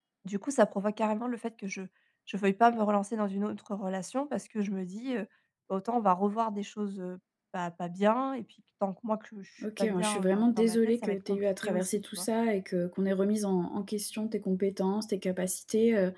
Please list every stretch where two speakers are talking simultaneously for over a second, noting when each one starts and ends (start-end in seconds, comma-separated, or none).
9.8-12.3